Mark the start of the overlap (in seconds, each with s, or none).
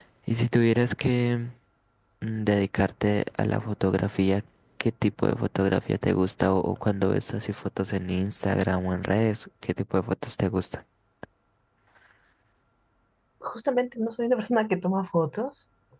none